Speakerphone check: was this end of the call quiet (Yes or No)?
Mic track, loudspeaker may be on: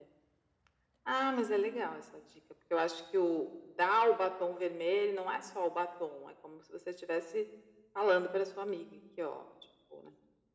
Yes